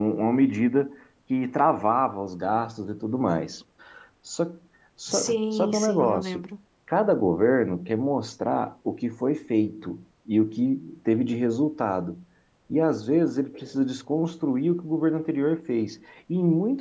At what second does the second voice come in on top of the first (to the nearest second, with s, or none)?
5 s